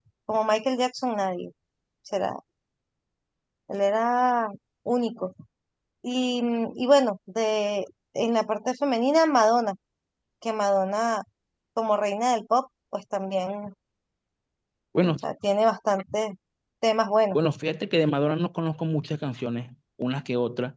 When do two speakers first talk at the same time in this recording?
none

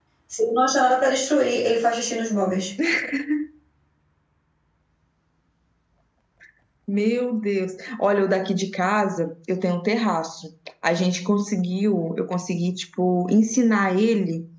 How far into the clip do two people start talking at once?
none

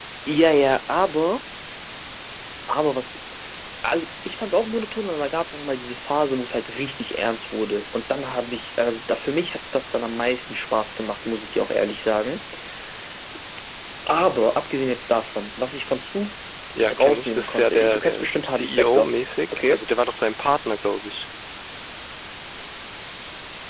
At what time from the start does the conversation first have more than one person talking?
17.0 s

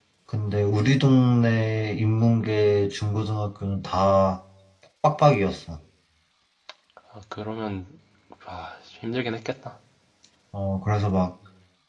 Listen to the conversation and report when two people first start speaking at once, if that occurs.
none

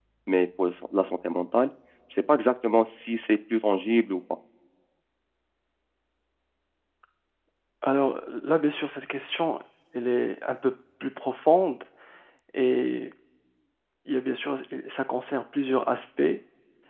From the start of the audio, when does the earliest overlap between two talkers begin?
none

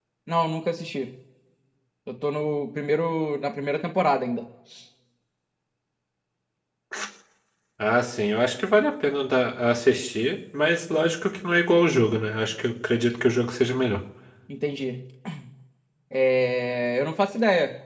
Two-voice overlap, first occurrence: none

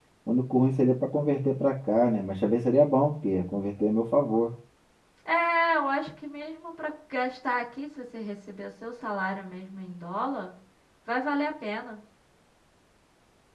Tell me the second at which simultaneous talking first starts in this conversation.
none

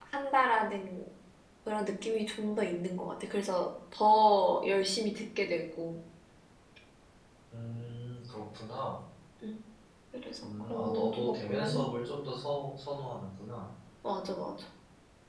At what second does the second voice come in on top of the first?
10.4 s

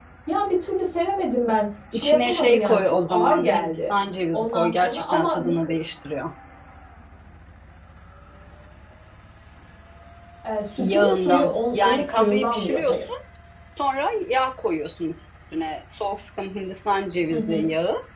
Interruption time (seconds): 1.9 s

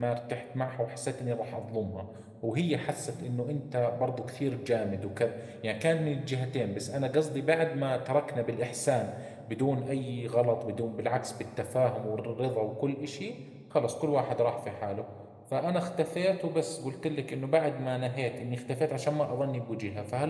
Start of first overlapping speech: none

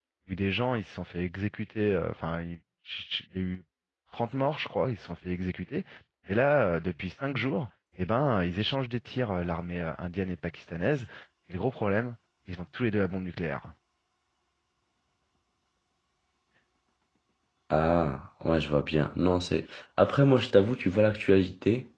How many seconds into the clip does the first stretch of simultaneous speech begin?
none

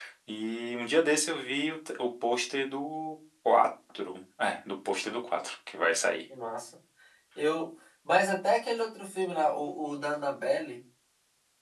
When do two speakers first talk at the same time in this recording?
none

